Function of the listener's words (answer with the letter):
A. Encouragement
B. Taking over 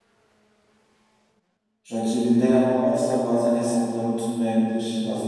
B